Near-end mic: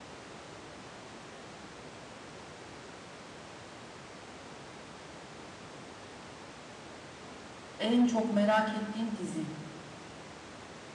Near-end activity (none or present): present